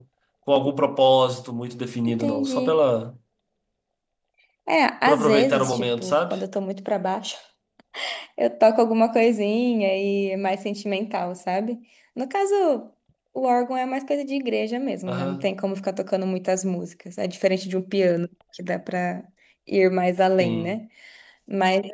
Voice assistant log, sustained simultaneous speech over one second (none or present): present